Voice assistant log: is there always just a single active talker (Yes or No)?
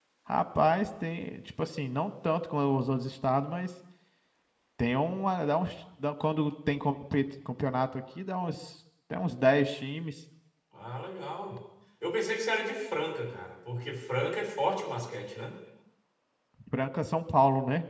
Yes